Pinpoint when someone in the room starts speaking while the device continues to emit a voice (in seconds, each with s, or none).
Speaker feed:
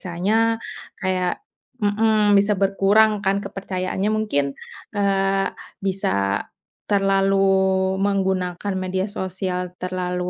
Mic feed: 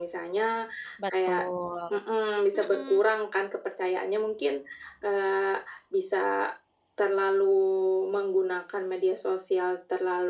1.0 s